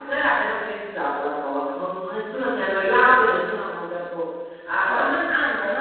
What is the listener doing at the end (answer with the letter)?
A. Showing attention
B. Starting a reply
A